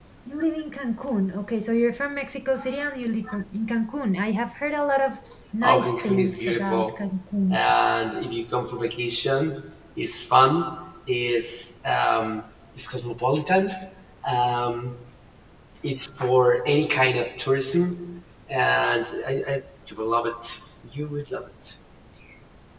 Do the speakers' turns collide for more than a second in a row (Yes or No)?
Yes